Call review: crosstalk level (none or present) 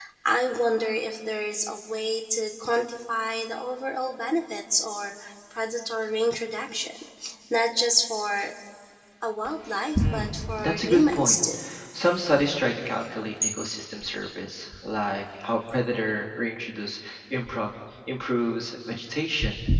present